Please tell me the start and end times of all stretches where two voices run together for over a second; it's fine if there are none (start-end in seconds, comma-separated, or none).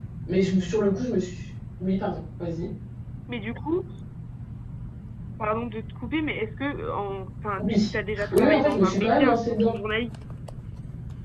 7.7-9.8